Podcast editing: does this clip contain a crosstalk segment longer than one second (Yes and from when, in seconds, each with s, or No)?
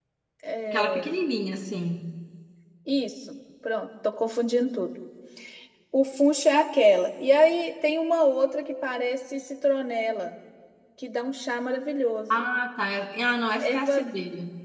No